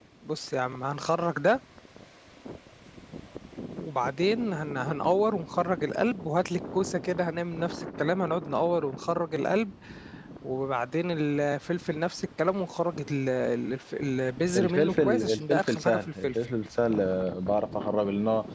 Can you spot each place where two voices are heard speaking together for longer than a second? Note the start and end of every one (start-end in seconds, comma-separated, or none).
14.6-16.3